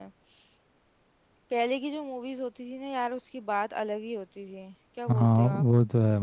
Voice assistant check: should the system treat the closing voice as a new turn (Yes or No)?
Yes